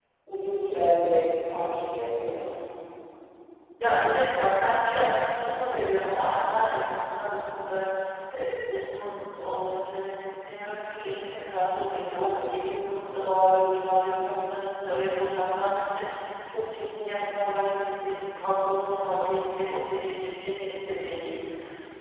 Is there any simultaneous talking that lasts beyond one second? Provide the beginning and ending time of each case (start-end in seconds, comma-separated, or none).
none